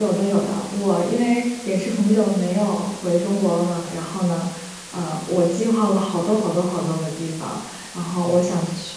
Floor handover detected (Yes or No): No